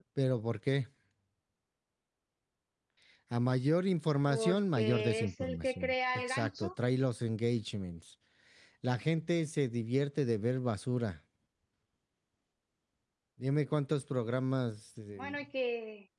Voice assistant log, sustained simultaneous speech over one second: present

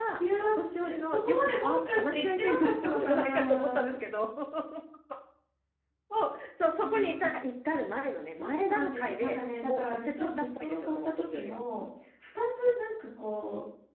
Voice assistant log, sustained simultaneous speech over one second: present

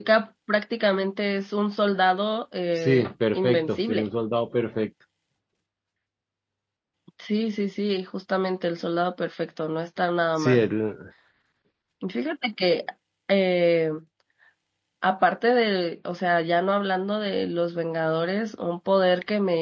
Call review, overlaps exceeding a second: present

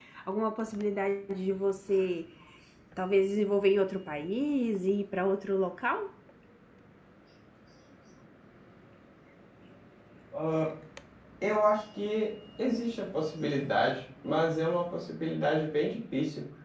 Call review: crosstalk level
none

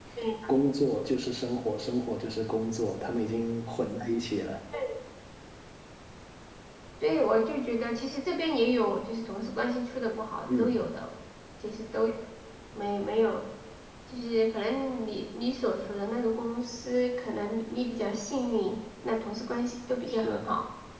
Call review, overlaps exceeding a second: none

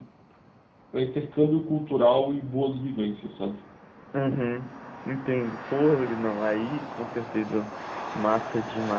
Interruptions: none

